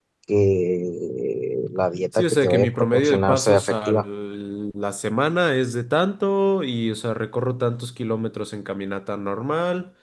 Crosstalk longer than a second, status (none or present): present